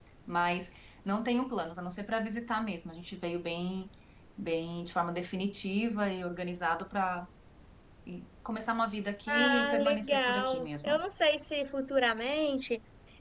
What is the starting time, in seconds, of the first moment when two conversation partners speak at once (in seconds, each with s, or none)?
9.3 s